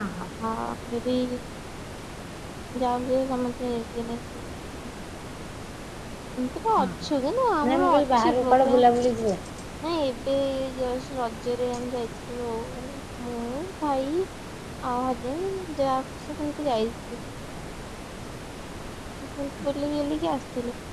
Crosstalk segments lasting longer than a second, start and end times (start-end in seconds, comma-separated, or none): 7.6-8.8